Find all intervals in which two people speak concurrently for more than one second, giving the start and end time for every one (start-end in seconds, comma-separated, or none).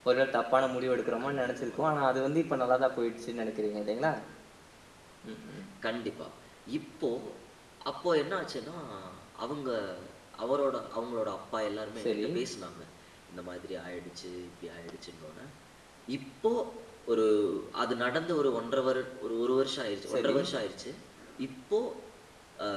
0.6-1.9